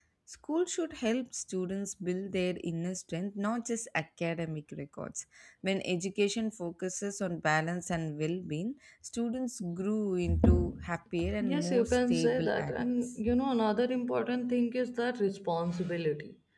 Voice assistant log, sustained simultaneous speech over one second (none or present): present